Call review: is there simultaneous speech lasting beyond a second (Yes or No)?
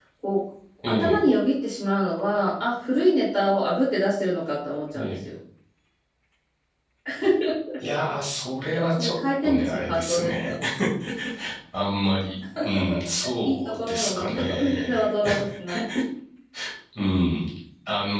Yes